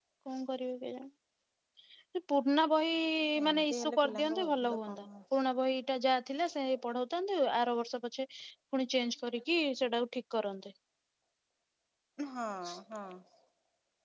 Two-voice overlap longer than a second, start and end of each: 3.5-5.0

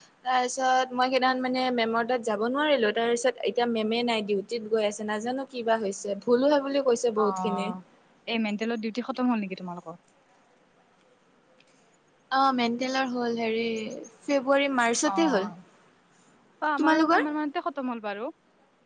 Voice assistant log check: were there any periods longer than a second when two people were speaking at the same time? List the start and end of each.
none

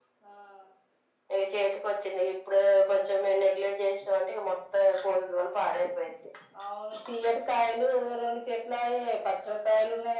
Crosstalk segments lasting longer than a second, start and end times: none

